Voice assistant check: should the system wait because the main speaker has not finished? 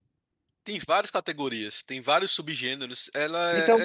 No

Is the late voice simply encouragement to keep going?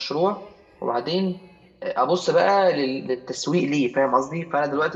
Yes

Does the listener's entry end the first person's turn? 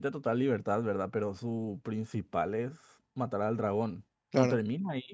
No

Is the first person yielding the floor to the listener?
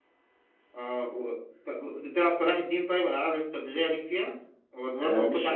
Yes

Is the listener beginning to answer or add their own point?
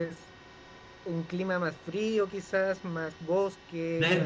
Yes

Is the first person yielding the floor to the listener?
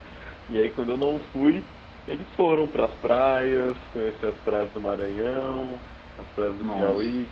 No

